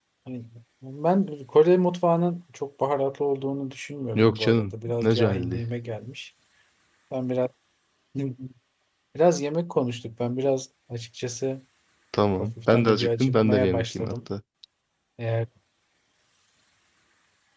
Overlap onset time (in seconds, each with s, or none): 4.2 s